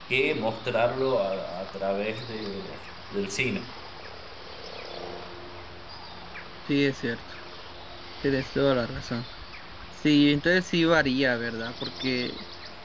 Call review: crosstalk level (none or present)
none